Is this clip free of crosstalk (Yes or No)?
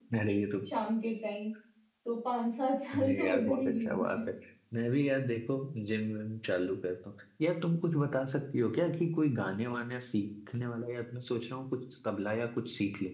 No